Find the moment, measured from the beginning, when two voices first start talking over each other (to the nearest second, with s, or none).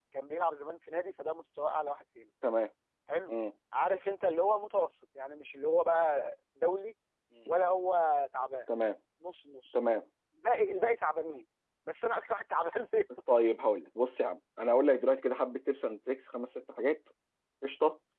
none